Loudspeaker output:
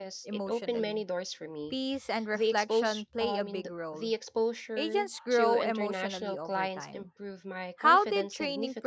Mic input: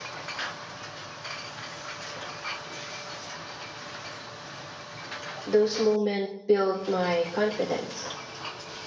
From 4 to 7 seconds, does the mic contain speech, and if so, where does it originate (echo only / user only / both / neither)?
user only